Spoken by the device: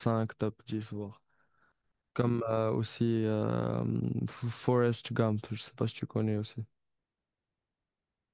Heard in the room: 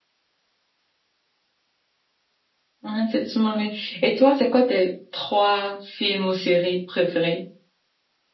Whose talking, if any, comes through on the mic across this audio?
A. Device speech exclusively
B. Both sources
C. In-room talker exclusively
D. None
C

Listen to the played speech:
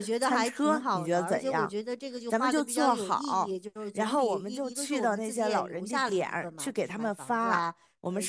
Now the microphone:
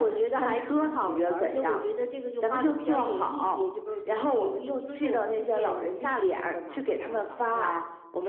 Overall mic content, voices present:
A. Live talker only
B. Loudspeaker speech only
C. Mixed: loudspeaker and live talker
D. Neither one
B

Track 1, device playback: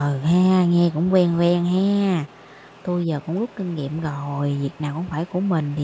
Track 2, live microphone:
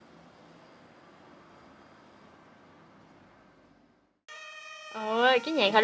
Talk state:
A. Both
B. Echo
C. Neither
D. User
D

